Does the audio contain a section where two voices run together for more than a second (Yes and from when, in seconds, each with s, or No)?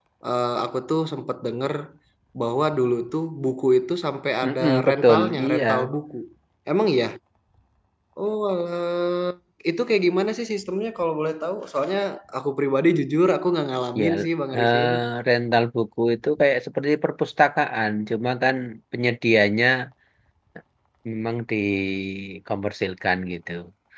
Yes, from 4.4 s